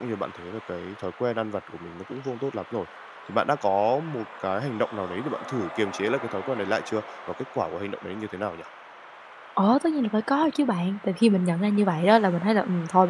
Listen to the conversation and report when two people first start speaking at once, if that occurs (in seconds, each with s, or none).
none